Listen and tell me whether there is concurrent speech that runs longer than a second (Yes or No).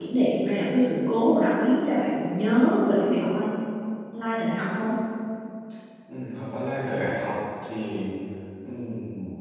No